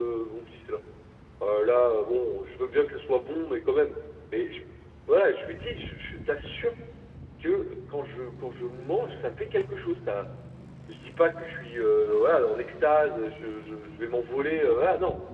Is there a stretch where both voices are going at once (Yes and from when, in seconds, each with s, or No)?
No